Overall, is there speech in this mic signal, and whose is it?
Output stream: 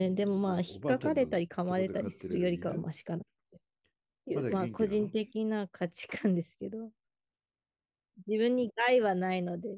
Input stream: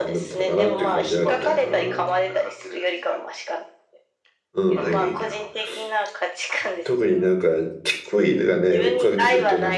both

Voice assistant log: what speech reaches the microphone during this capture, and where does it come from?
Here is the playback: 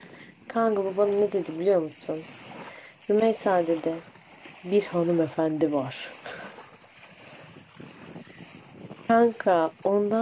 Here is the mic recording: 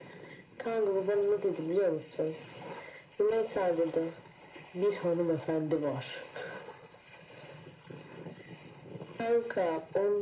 echo only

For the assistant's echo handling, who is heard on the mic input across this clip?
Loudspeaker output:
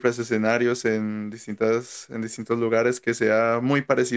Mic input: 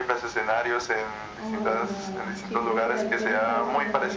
both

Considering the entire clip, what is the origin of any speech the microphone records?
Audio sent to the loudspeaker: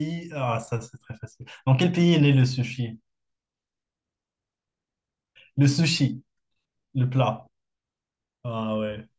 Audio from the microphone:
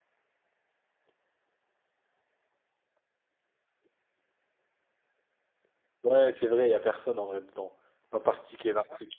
user only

